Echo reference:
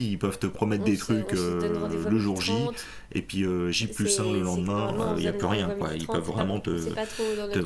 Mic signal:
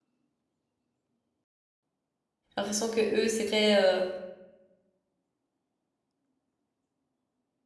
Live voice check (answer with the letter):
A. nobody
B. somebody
B